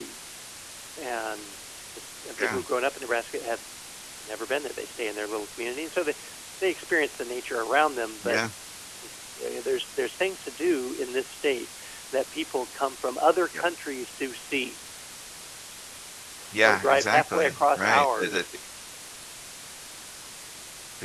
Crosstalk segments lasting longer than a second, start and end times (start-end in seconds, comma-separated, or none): 16.6-18.4